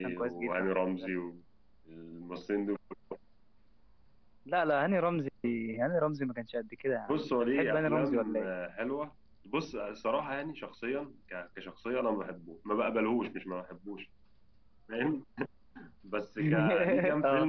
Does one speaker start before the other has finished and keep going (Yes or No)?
Yes